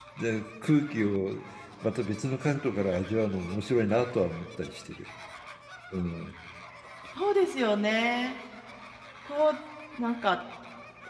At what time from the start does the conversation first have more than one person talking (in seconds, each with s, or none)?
none